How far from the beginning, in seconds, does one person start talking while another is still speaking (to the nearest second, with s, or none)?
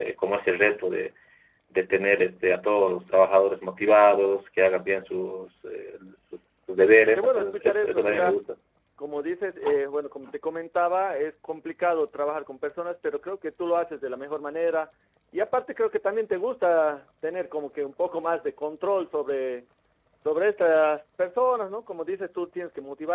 7 s